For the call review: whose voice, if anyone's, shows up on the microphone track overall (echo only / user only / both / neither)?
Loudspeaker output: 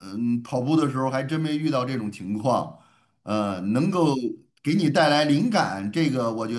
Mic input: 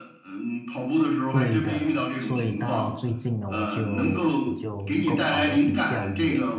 both